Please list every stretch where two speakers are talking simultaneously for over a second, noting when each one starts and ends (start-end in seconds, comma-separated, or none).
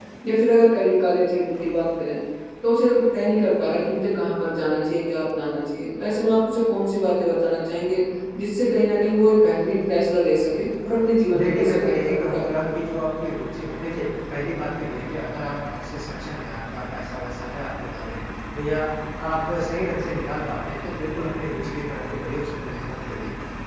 11.4-12.8